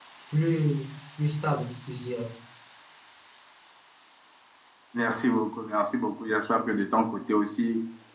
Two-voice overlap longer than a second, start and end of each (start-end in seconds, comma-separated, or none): none